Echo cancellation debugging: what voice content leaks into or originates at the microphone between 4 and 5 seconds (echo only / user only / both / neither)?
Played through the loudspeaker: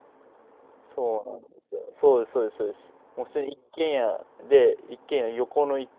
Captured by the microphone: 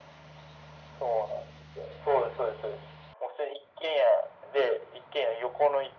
echo only